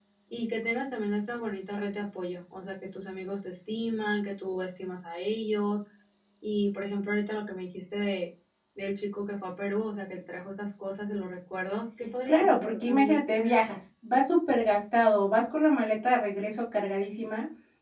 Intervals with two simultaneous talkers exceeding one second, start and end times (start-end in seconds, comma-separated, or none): 12.3-13.6